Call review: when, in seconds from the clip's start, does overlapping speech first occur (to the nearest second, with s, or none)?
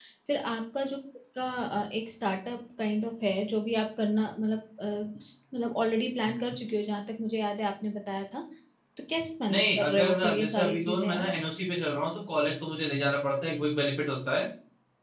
10 s